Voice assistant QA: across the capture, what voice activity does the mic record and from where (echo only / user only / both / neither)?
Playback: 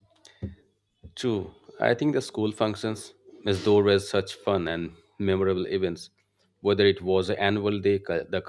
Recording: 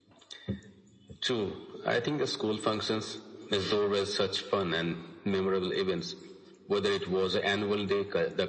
echo only